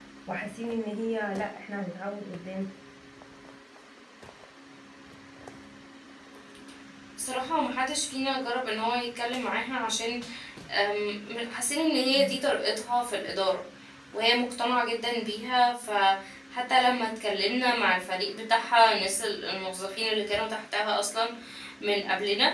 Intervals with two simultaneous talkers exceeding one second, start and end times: none

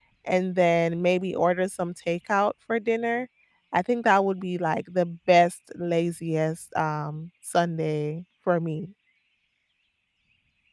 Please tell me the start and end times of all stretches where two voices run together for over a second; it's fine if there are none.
none

